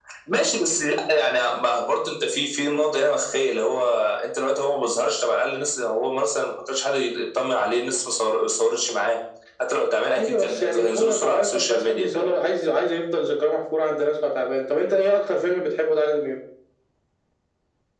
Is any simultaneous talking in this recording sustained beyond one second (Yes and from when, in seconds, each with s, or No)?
Yes, from 10.2 s